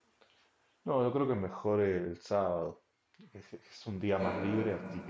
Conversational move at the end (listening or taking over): listening